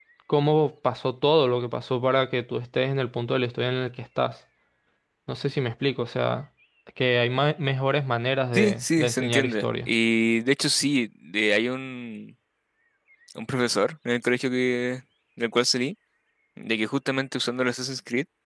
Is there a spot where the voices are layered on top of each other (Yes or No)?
Yes